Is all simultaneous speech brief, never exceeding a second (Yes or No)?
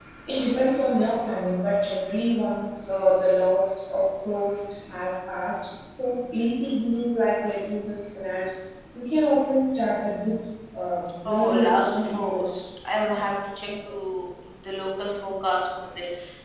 No